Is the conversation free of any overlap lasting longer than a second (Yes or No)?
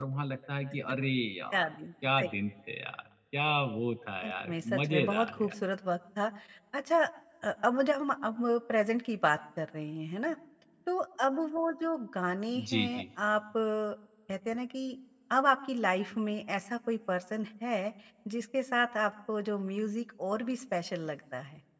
No